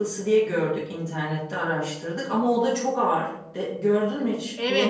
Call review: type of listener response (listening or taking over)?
taking over